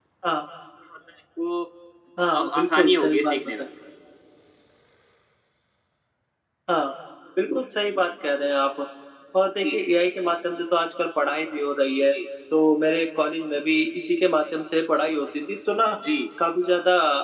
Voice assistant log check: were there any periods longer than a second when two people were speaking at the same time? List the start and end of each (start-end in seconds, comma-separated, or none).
2.4-3.6